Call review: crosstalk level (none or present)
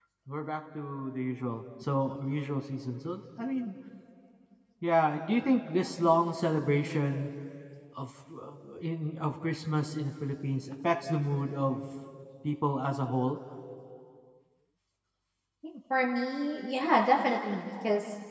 none